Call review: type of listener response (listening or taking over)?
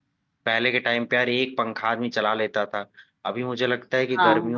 listening